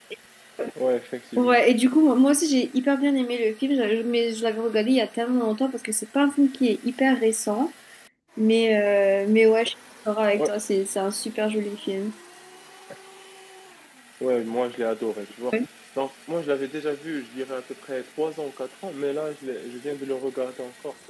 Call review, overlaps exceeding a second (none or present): none